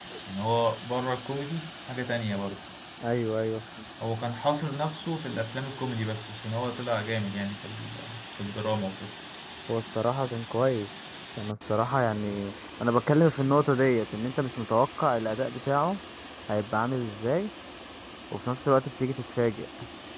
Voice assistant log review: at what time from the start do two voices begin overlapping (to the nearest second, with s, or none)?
none